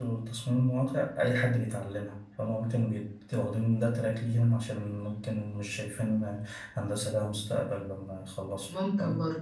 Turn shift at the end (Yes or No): Yes